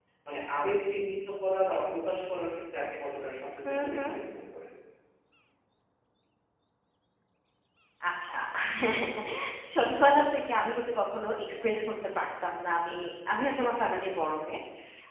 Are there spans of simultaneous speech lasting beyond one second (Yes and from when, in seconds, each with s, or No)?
No